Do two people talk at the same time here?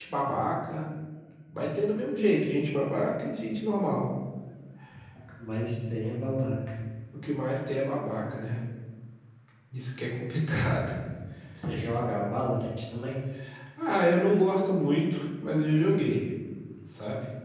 No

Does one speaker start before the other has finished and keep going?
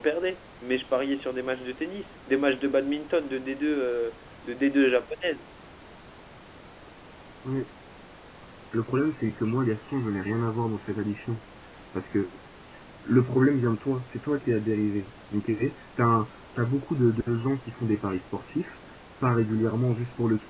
No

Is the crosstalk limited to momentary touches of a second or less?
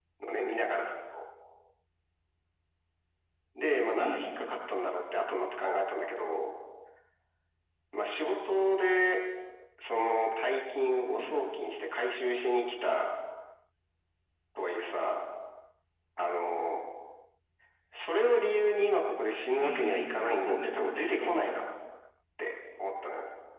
No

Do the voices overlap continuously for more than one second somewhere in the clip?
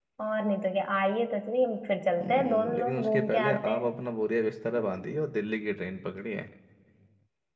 Yes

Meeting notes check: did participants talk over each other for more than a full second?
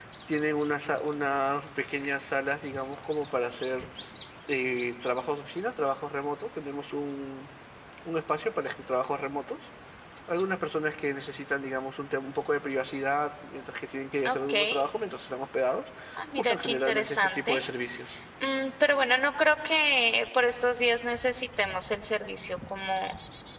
Yes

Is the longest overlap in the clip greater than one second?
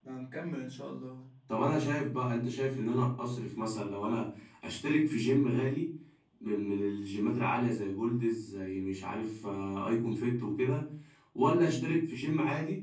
No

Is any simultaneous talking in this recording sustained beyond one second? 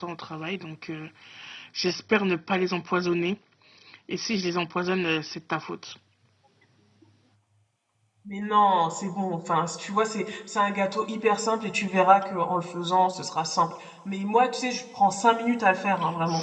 No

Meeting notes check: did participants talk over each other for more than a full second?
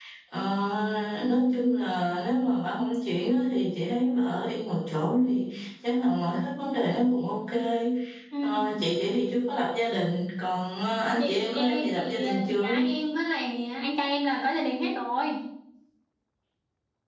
Yes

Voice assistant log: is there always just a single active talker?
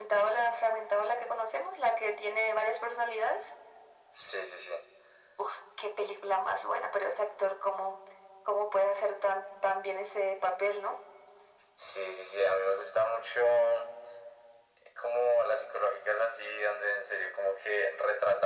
Yes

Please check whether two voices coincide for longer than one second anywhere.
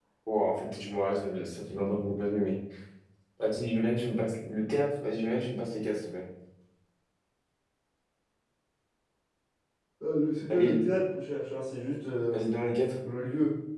No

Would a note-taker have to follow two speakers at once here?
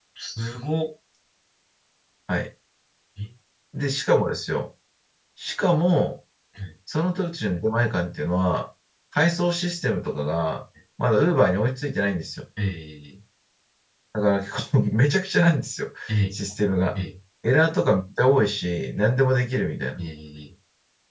No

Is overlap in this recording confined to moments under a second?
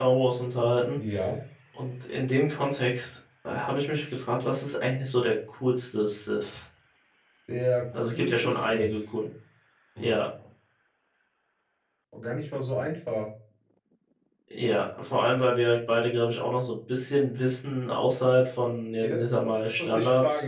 No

